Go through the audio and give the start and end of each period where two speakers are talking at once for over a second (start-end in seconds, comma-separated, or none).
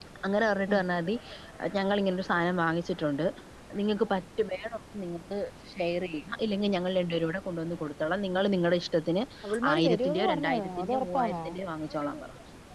9.7-11.4